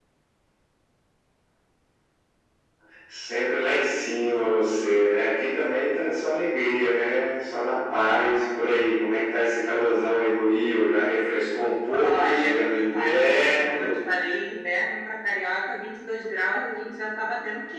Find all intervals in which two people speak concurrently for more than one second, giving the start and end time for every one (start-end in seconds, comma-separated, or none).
12.0-13.9